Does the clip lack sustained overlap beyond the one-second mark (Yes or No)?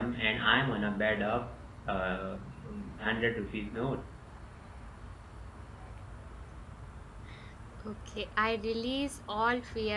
Yes